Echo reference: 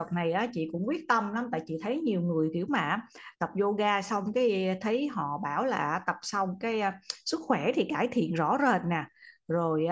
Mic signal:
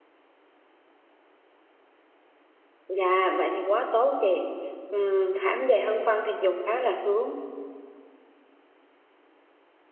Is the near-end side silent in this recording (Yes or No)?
No